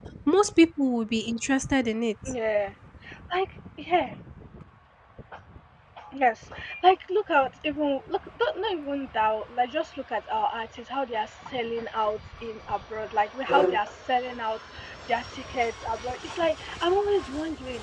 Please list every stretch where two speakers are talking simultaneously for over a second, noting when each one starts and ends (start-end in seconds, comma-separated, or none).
none